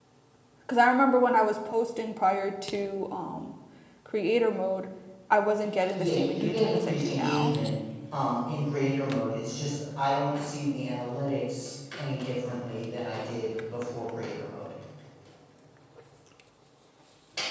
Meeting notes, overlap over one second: present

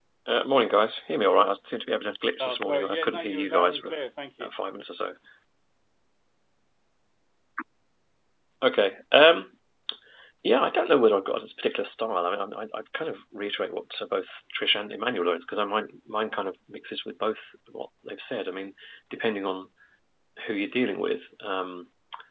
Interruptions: present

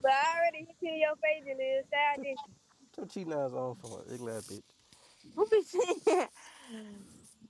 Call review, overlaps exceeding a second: none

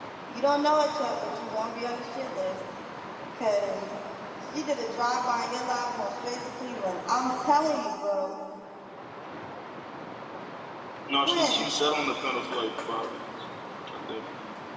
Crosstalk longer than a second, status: none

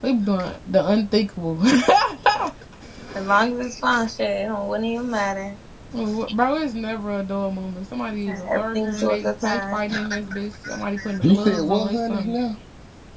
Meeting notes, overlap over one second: present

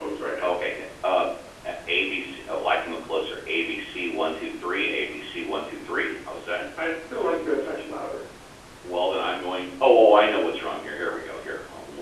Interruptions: none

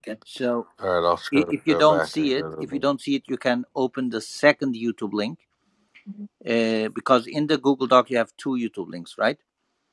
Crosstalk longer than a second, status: present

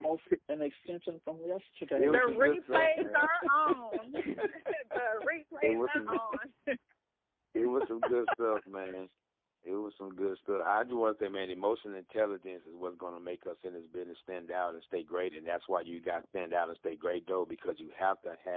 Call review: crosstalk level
present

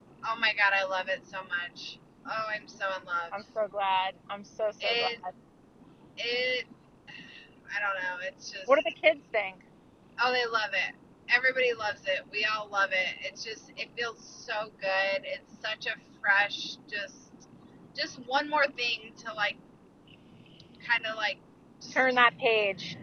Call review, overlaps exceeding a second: none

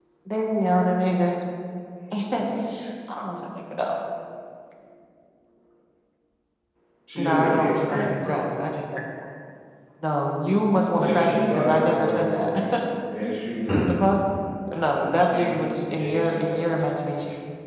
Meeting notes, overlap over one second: present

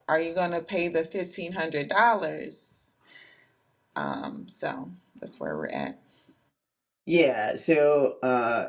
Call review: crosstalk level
none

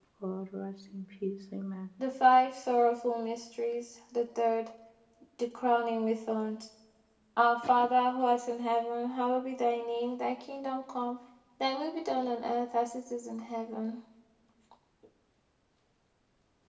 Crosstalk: none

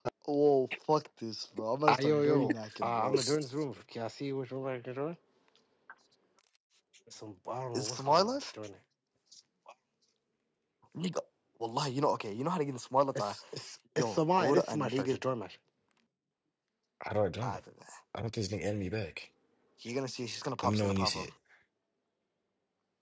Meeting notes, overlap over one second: present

